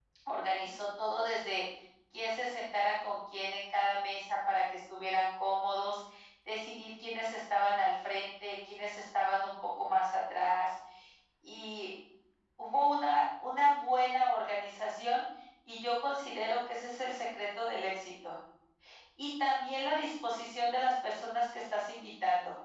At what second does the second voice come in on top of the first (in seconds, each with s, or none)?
none